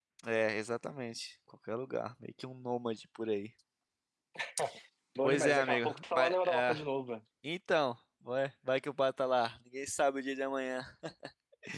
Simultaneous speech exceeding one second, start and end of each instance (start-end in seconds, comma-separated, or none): 5.2-6.8